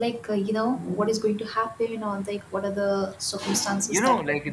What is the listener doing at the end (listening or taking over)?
taking over